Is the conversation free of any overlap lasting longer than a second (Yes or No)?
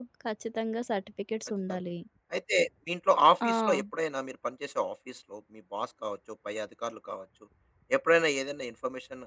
Yes